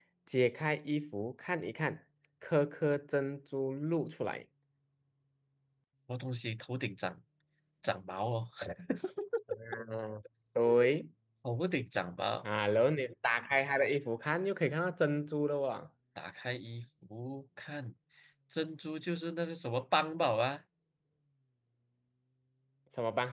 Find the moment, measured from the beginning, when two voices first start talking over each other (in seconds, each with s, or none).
none